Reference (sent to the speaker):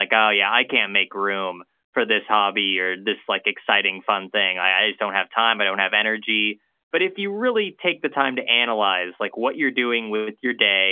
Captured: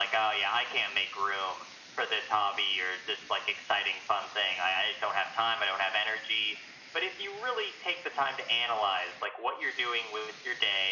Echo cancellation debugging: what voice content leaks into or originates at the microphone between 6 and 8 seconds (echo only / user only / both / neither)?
echo only